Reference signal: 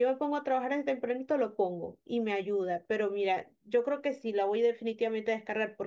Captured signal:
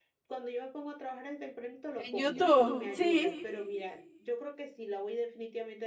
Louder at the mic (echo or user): user